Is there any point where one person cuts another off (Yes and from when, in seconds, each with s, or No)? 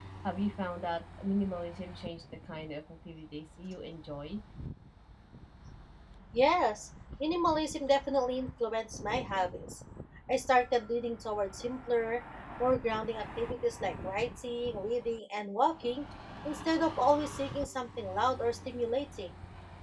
No